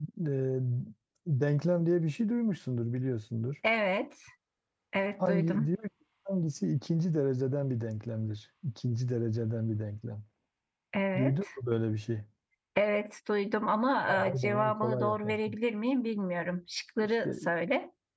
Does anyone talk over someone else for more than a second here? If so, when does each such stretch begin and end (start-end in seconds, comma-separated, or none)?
14.1-15.5